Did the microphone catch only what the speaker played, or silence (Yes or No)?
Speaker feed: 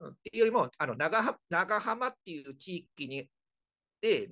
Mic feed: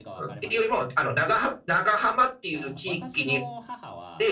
No